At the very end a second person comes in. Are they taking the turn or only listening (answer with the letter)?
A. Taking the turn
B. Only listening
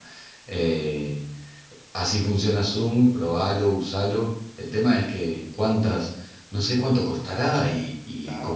A